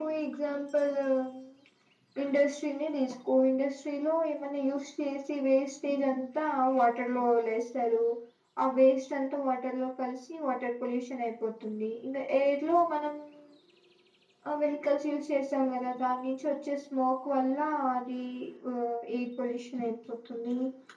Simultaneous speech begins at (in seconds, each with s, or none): none